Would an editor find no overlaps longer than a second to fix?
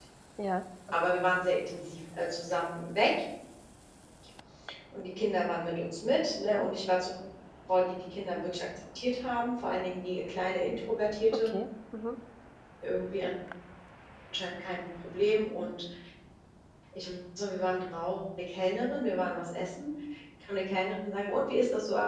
Yes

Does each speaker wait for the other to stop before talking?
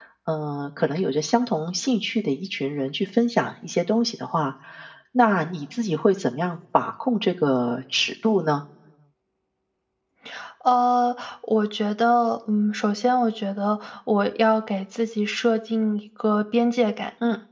Yes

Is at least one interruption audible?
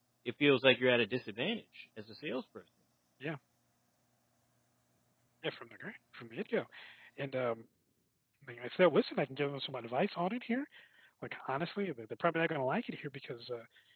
No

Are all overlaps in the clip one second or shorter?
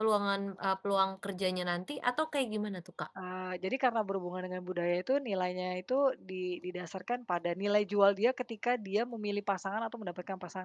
Yes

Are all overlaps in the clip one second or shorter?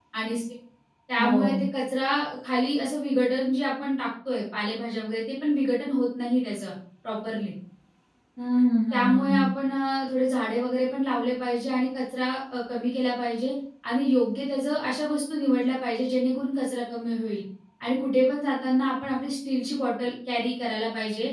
Yes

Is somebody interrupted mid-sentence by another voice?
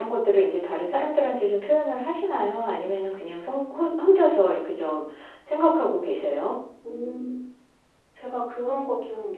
No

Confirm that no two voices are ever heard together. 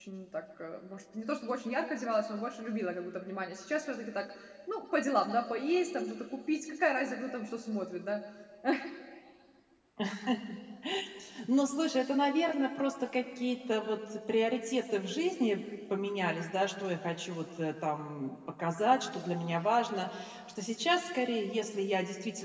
Yes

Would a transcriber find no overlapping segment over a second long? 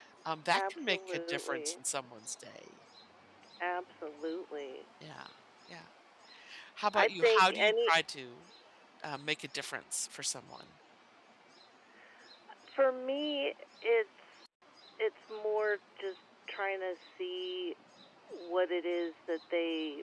No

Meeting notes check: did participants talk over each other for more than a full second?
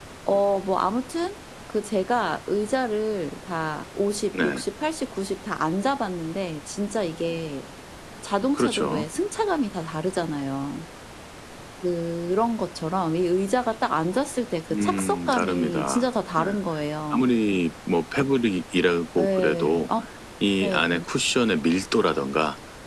Yes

